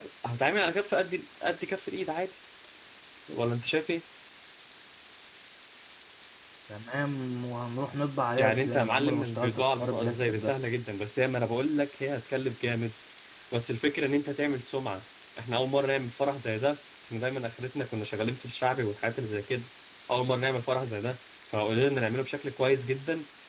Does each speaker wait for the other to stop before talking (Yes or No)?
No